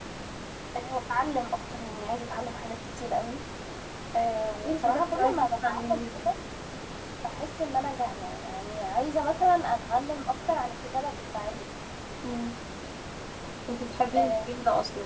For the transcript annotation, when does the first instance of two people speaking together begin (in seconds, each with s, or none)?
4.7 s